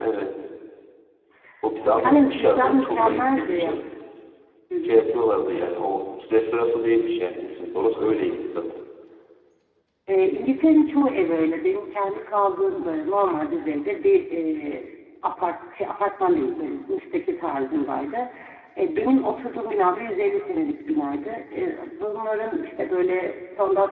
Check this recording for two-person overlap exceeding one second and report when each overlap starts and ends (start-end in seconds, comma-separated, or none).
1.9-3.8